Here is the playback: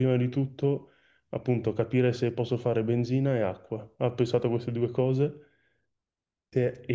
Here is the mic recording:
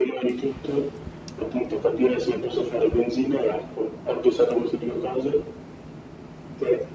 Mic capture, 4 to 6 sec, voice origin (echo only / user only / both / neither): echo only